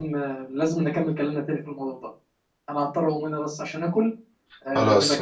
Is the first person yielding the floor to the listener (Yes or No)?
Yes